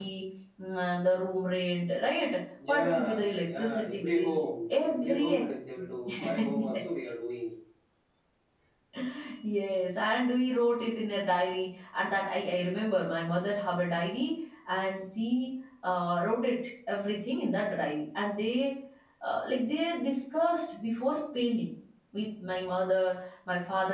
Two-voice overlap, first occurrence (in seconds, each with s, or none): 2.6 s